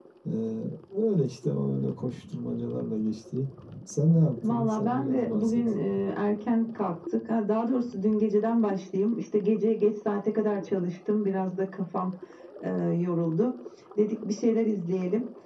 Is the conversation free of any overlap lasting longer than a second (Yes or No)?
No